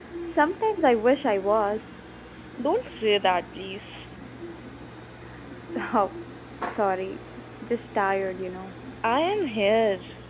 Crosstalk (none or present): none